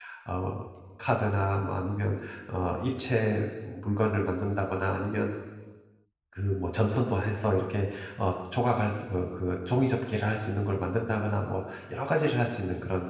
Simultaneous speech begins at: none

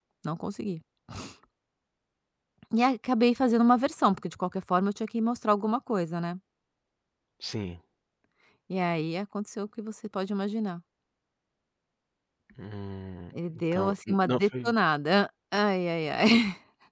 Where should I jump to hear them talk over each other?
13.3 s

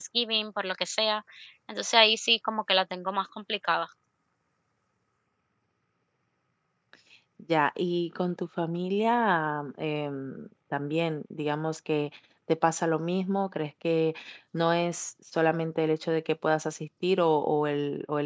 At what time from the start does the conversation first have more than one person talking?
none

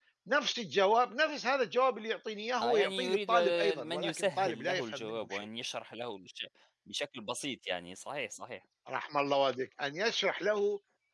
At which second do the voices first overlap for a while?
2.6 s

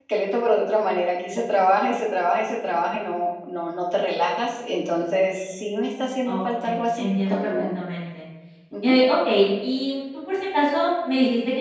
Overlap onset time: 6.3 s

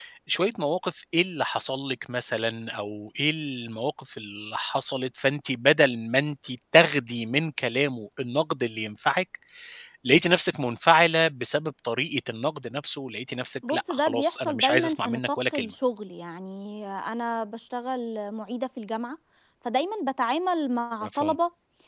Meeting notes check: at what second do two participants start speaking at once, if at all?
13.7 s

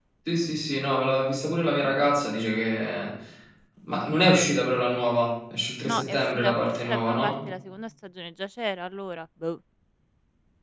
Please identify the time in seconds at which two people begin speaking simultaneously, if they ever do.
5.8 s

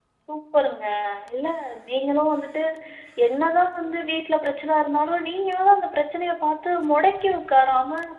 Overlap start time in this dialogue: none

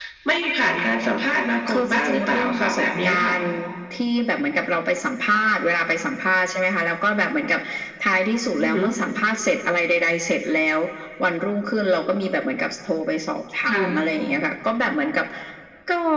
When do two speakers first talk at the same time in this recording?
1.8 s

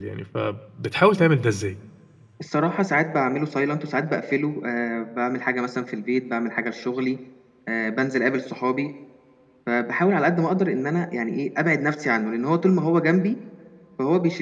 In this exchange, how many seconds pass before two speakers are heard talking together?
none

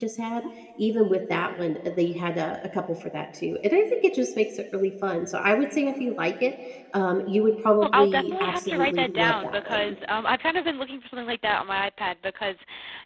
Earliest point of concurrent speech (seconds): 7.8 s

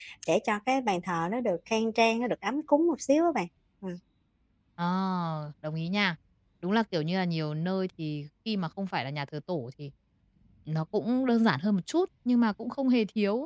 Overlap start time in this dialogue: none

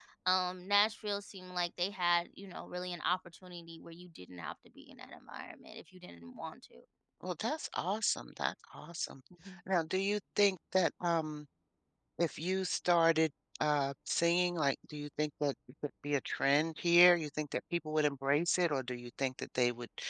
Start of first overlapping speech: none

